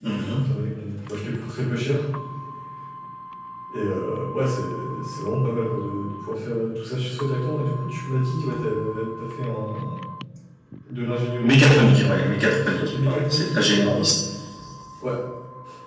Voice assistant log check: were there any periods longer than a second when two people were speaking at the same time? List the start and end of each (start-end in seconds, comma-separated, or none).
11.4-14.1